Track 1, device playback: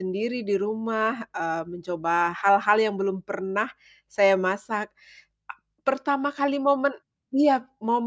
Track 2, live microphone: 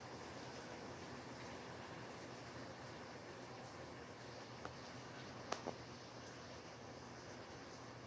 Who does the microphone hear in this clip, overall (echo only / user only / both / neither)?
neither